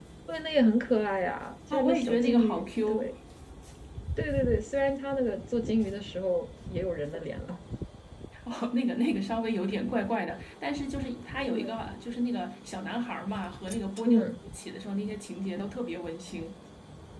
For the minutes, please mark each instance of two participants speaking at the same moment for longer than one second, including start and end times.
1.7-3.0

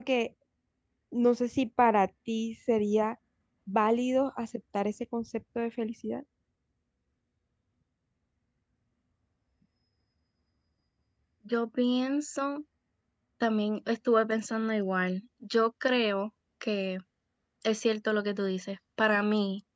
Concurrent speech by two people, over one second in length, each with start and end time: none

